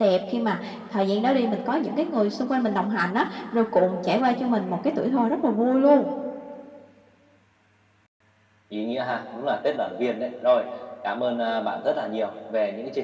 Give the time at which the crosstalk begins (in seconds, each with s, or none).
none